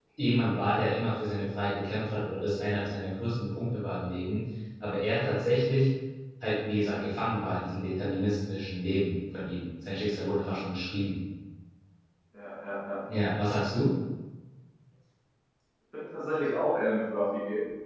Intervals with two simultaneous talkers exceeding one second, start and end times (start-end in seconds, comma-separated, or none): none